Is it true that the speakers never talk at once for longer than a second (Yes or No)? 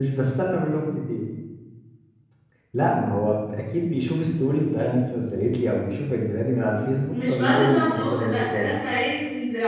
No